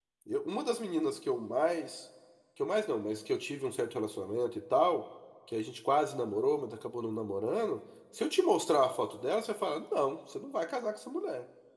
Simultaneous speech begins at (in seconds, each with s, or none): none